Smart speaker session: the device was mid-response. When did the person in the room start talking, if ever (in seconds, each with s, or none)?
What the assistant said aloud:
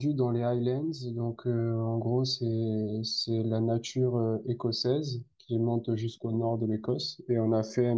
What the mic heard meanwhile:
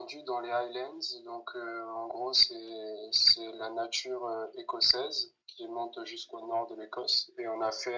none